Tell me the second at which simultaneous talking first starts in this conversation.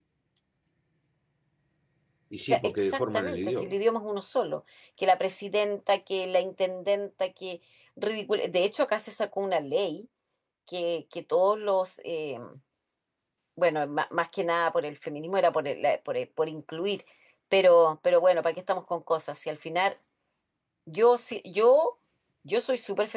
2.5 s

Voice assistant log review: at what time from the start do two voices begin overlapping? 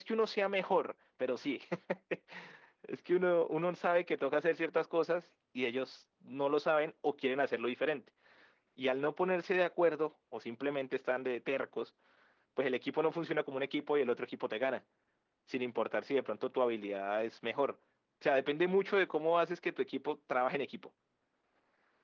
none

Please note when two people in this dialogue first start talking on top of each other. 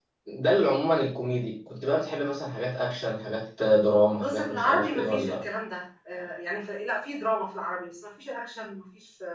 4.1 s

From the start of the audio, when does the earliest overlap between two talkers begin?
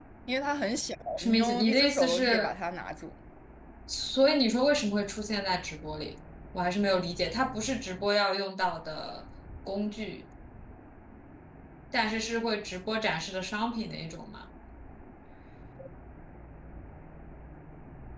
1.2 s

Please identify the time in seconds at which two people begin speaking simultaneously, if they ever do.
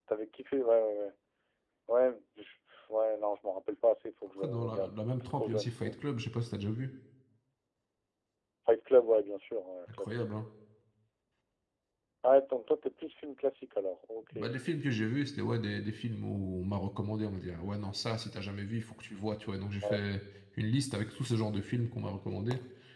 4.4 s

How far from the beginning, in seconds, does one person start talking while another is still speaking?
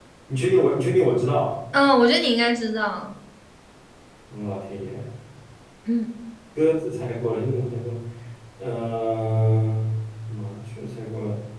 none

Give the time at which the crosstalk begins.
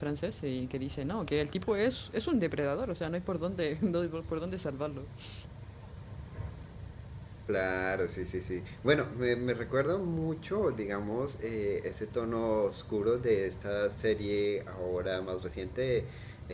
none

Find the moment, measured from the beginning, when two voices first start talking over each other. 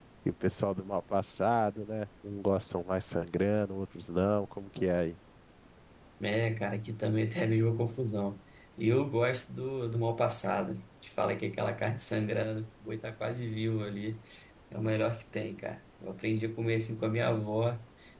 none

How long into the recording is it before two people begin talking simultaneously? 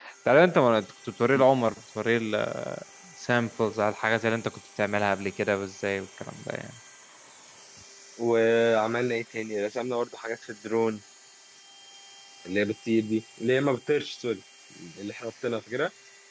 none

